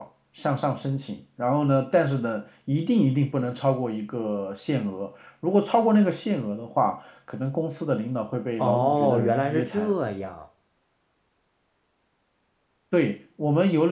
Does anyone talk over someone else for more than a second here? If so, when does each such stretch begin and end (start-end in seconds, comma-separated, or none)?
8.6-9.9